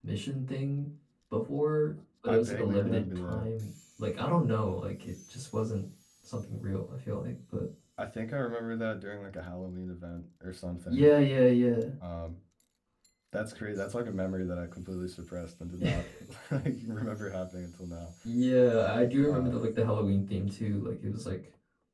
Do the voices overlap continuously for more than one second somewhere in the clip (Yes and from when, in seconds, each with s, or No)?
Yes, from 2.3 s